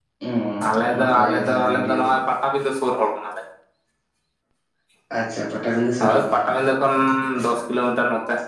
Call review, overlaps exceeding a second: present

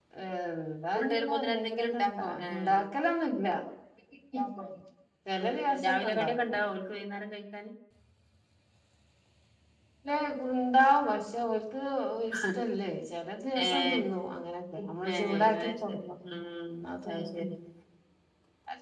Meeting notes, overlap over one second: present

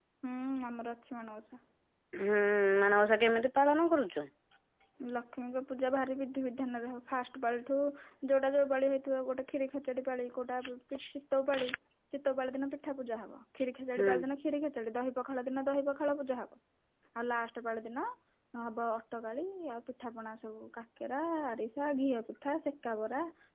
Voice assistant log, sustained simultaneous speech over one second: none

